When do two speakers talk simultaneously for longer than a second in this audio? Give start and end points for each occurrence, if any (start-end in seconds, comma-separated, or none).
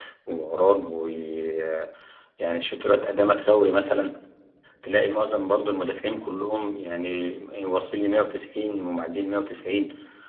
none